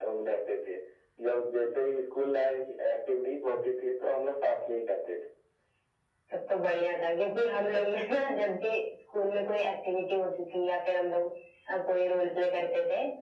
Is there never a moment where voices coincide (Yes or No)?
Yes